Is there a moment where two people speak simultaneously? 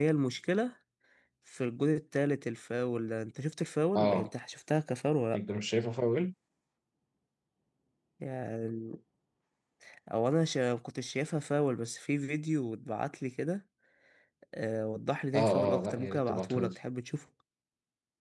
Yes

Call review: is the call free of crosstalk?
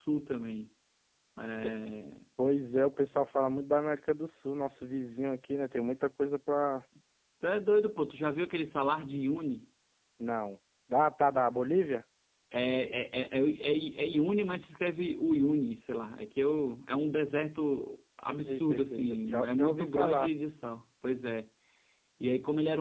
No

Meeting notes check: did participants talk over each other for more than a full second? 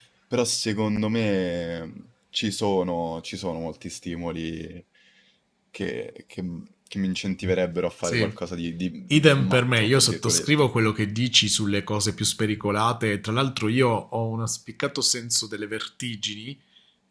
Yes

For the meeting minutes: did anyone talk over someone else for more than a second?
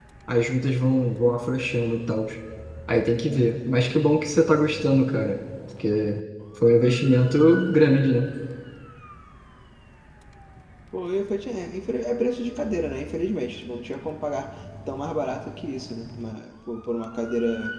No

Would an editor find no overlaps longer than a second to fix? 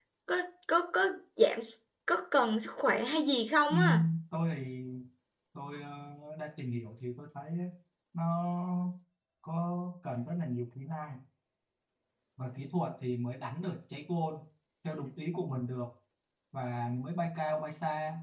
Yes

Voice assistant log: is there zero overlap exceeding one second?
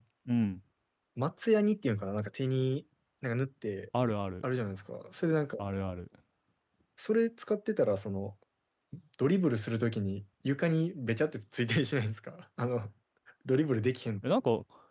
Yes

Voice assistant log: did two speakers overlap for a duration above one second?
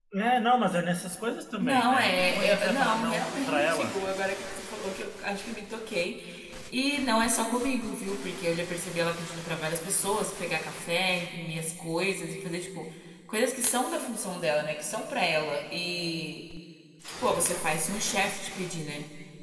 Yes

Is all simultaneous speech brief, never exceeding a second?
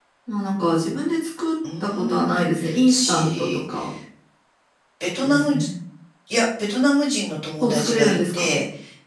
No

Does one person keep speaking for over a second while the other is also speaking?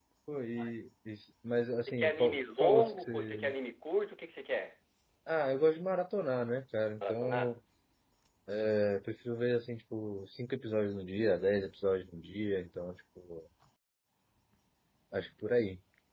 Yes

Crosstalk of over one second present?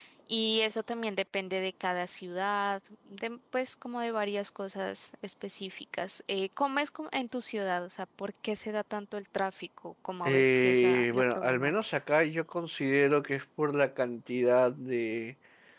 Yes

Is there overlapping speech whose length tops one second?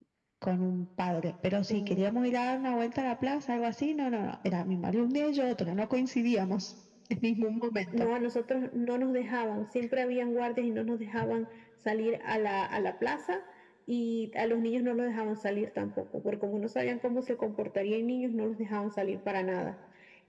No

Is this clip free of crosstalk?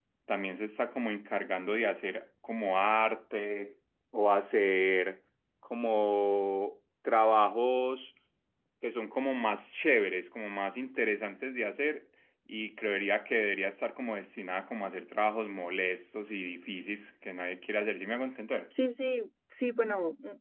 Yes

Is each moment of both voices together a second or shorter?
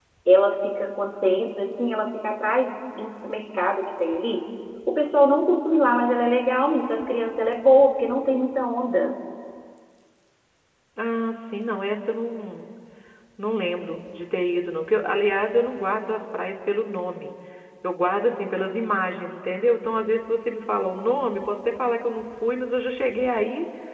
Yes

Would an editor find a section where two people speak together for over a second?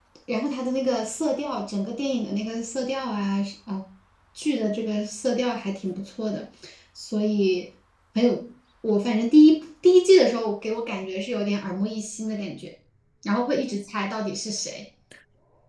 No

